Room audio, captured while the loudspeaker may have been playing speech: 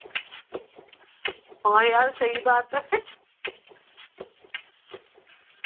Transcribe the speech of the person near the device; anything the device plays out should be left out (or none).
हाँ यार सही बात है